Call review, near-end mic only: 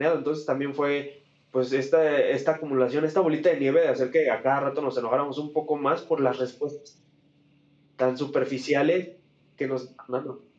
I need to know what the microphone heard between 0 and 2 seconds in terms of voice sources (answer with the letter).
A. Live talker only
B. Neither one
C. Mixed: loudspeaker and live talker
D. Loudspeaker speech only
A